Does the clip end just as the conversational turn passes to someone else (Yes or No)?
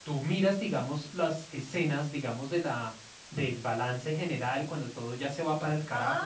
Yes